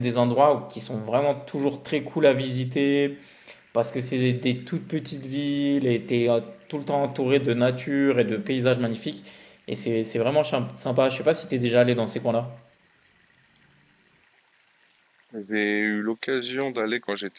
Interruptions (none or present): none